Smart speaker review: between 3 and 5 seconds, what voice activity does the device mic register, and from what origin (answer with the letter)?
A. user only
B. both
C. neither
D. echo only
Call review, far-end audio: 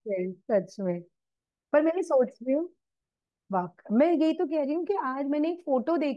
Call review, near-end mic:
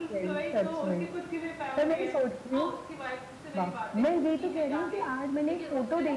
B